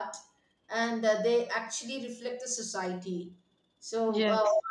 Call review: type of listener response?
listening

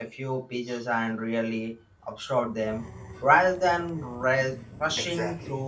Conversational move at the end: taking over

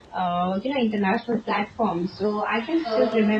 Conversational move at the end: listening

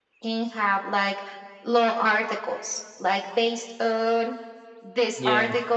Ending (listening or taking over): listening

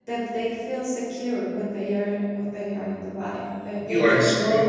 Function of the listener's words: taking over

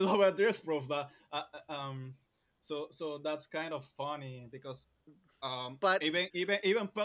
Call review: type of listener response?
listening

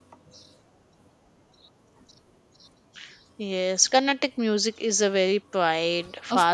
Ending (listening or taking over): taking over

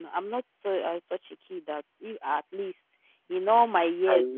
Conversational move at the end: listening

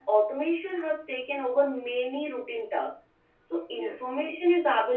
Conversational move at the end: listening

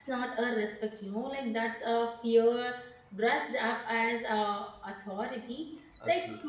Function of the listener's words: listening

